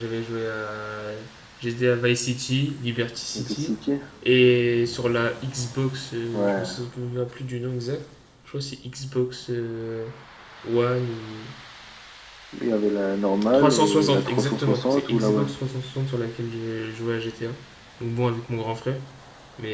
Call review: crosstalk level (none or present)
present